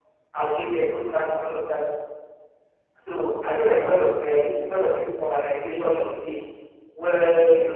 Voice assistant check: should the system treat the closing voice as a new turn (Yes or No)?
No